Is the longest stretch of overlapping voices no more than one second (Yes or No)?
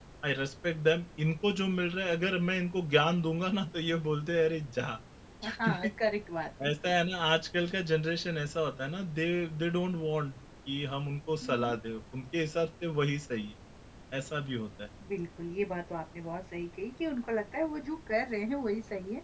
Yes